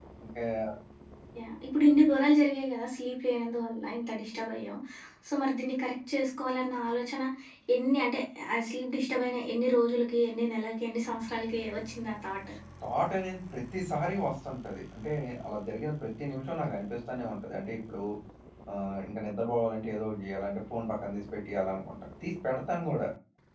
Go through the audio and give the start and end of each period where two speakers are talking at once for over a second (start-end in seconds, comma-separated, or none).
none